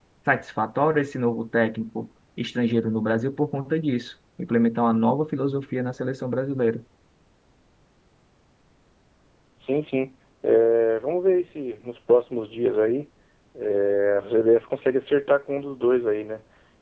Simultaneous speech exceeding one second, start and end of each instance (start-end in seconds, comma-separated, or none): none